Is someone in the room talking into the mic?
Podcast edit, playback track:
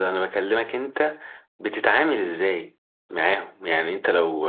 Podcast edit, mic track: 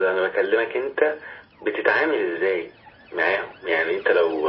No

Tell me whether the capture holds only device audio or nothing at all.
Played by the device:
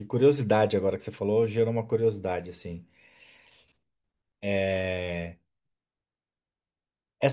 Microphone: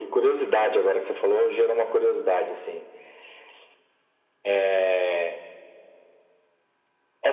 Yes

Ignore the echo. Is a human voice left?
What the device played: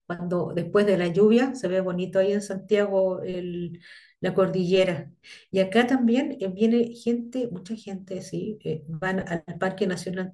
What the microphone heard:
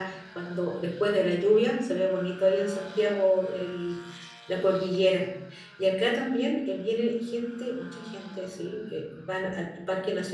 No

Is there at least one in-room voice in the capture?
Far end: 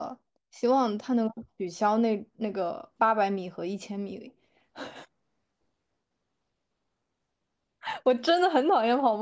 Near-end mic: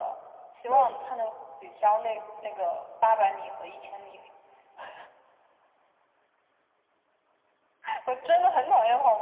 Yes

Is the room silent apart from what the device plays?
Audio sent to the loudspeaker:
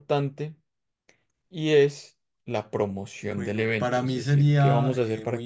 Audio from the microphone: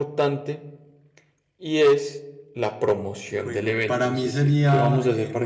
Yes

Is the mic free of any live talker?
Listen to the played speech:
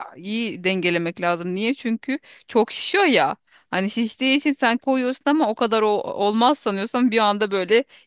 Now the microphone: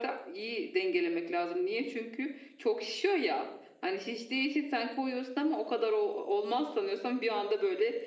Yes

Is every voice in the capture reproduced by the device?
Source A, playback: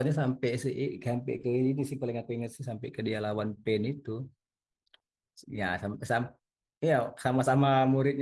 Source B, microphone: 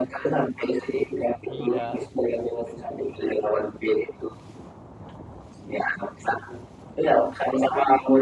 No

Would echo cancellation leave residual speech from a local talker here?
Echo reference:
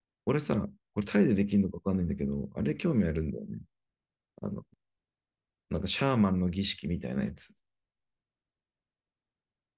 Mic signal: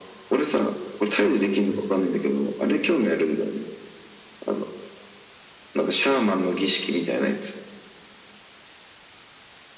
Yes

